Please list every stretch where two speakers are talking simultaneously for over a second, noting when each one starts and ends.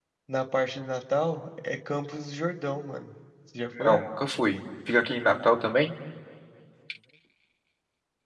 none

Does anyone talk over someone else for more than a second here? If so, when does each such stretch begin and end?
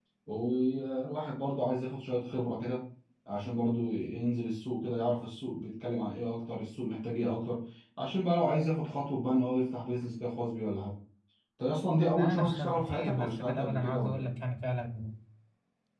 12.1-14.3

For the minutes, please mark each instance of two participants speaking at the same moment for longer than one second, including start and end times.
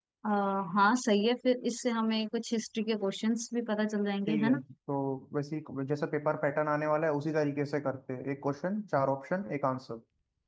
none

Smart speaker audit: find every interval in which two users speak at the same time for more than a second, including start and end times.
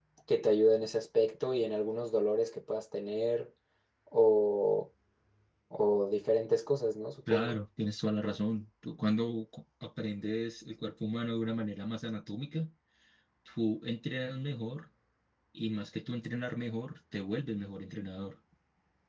none

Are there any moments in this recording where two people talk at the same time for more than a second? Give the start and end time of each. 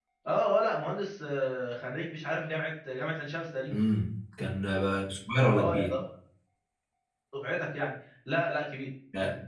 none

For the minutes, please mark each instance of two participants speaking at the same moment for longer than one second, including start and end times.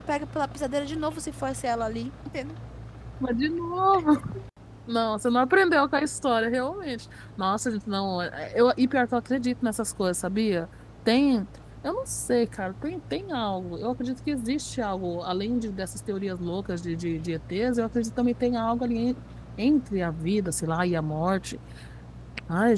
none

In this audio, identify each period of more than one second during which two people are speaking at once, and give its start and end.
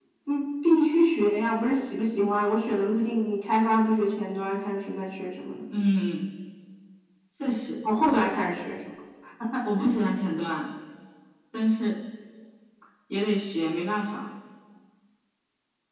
none

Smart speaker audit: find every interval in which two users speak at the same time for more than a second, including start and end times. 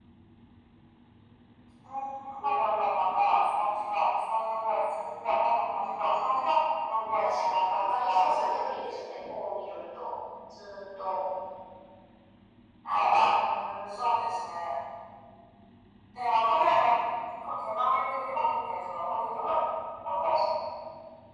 7.0-8.7

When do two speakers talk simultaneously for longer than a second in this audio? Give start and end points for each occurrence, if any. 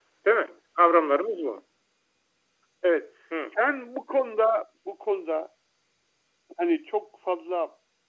none

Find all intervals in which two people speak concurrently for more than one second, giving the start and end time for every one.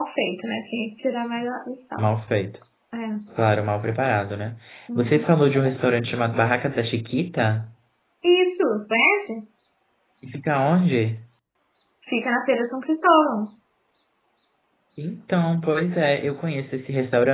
none

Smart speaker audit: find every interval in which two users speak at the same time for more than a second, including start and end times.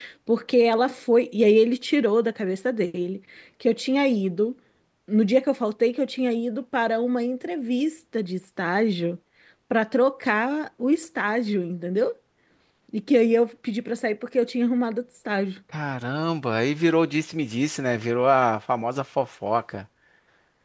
none

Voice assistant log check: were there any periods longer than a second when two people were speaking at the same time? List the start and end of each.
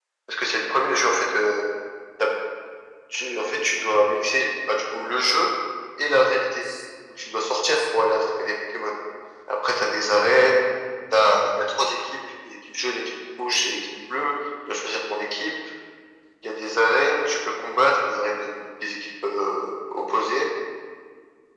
none

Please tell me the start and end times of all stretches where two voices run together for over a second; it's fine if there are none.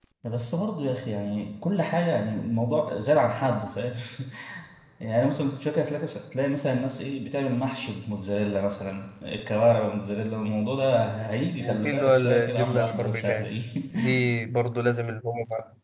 11.6-13.5

